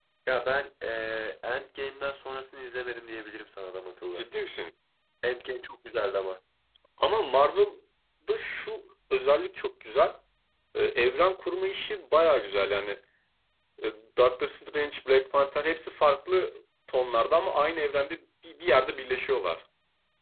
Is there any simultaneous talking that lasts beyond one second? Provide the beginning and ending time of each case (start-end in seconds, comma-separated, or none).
none